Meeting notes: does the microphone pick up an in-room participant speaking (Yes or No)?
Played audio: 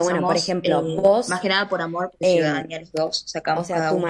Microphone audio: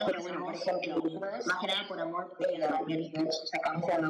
No